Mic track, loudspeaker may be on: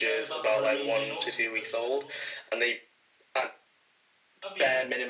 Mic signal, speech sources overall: both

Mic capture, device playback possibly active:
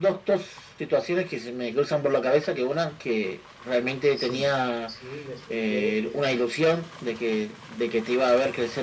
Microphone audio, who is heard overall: both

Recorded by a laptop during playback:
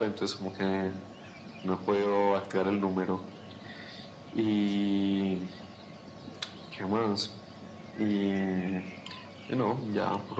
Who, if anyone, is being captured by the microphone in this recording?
echo only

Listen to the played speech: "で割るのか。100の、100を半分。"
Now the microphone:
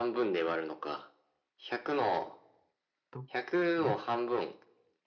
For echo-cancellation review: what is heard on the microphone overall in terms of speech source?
both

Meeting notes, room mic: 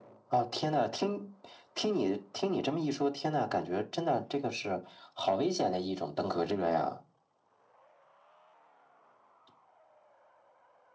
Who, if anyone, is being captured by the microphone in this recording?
echo only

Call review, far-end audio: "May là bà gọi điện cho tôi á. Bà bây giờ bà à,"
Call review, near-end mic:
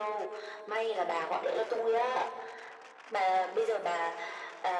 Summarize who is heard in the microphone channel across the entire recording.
echo only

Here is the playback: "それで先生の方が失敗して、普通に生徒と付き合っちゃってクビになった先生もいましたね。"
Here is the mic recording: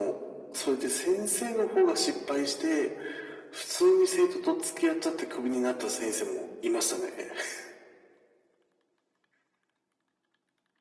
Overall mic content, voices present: echo only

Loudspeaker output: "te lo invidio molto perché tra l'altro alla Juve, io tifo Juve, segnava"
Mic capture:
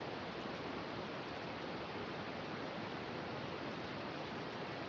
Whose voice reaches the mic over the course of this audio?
neither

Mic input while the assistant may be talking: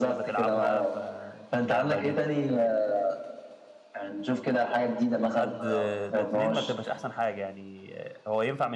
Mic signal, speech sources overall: both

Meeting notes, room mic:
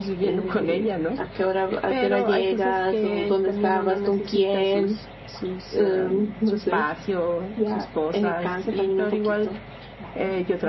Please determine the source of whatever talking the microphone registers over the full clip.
both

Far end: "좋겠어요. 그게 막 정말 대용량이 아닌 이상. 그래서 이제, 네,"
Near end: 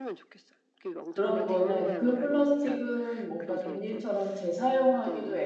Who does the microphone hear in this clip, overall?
both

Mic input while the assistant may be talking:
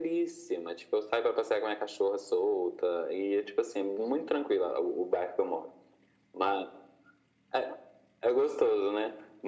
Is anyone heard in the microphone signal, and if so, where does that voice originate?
echo only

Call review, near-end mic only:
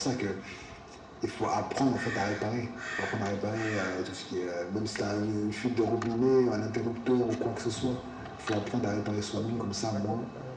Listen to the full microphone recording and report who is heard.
both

